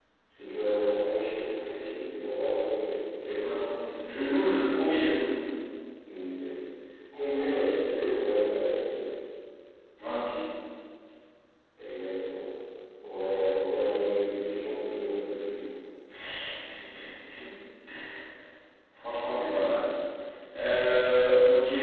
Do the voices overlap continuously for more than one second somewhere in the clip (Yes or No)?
No